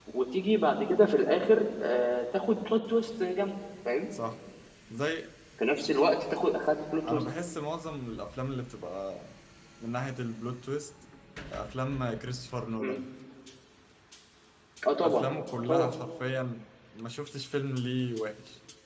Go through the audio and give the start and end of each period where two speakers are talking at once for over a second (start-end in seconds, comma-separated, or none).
none